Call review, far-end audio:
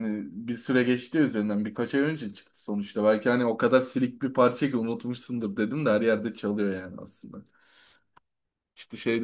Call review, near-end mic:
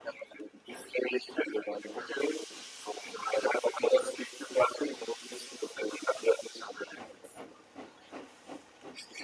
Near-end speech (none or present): none